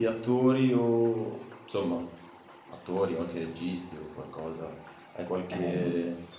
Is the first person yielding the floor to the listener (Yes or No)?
No